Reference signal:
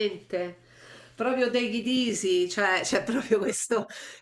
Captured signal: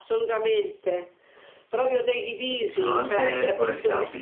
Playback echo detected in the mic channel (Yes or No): Yes